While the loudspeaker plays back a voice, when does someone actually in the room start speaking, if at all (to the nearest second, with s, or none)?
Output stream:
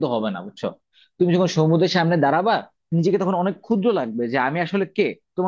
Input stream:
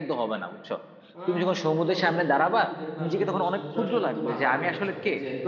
1 s